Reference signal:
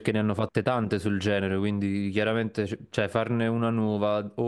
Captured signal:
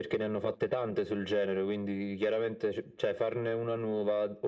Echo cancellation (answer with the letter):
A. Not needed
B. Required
B